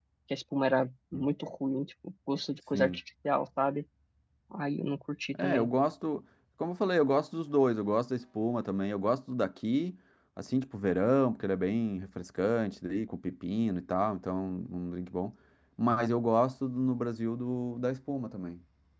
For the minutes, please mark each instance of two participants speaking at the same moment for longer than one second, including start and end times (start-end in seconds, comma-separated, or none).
none